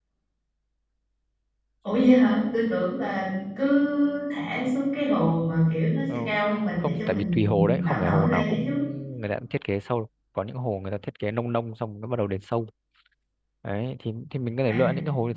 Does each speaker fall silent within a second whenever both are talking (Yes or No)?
No